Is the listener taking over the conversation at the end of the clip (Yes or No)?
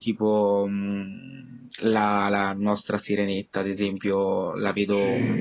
No